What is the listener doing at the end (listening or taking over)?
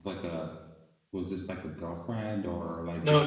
taking over